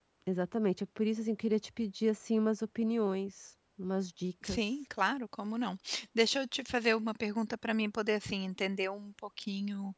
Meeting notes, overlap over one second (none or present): none